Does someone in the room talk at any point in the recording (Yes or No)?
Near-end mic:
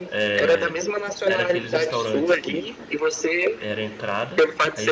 Yes